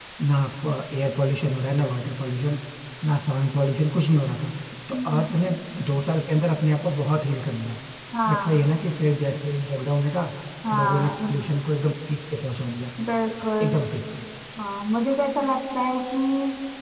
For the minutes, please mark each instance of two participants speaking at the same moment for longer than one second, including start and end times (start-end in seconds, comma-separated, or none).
none